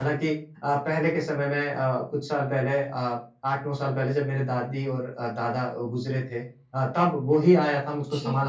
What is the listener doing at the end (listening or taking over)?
listening